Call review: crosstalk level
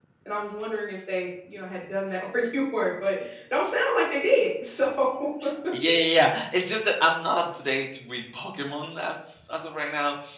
none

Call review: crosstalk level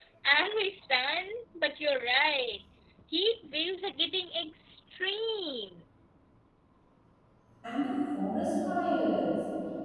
none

